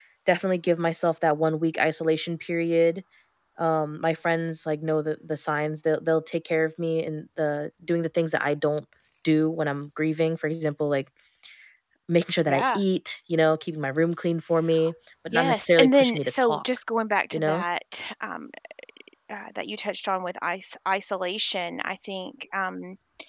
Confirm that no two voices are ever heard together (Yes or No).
No